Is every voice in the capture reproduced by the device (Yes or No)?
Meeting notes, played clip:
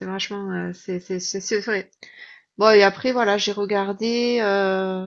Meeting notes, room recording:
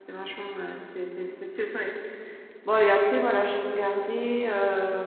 Yes